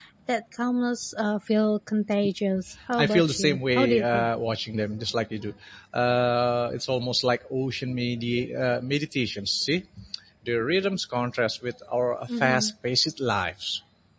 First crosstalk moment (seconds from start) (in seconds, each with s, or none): 3.0 s